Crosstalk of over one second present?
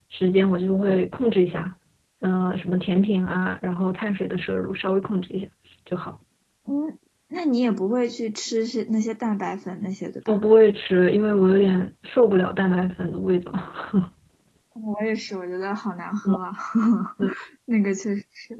No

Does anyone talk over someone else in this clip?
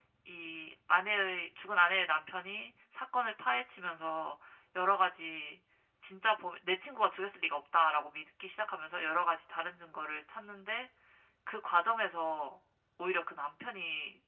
No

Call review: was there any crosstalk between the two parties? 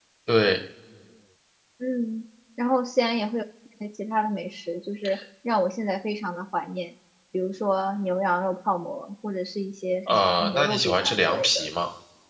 Yes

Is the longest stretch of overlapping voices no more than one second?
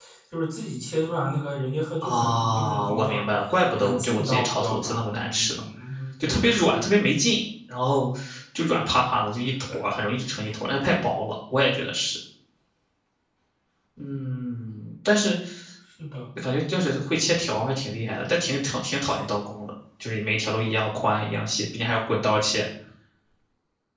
No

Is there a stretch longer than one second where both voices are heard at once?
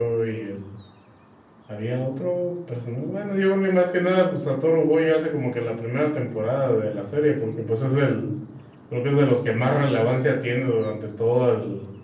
No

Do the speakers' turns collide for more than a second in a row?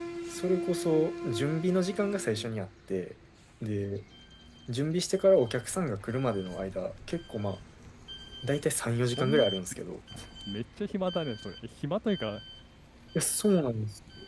No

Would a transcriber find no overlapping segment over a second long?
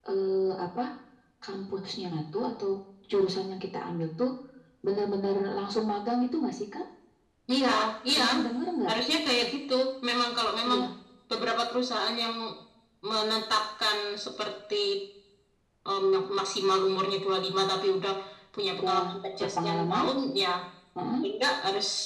No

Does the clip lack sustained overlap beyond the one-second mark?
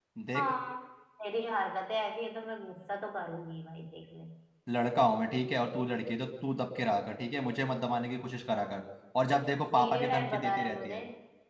No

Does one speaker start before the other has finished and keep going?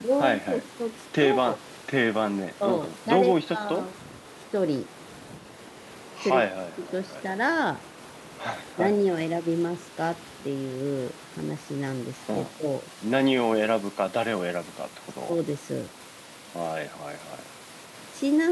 Yes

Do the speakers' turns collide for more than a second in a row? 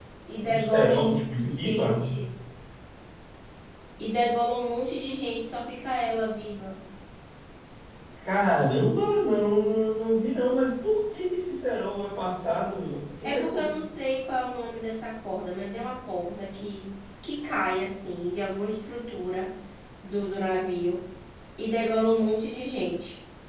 Yes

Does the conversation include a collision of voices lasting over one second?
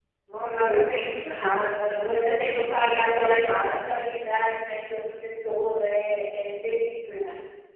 Yes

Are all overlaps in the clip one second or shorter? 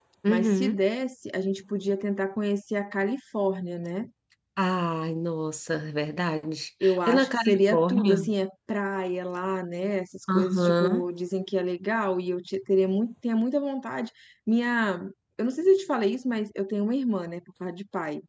No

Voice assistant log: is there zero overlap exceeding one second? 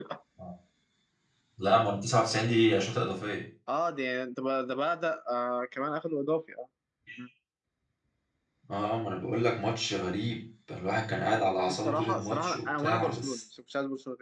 No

